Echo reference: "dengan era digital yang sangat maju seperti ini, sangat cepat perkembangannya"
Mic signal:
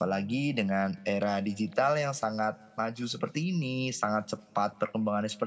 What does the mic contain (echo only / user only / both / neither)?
echo only